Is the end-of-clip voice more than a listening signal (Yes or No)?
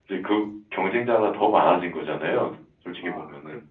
Yes